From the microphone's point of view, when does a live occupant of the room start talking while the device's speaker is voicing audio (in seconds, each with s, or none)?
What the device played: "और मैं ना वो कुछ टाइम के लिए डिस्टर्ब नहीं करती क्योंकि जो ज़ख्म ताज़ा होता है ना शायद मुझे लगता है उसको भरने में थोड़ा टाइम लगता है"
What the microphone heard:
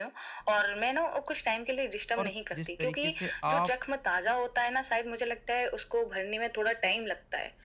2.2 s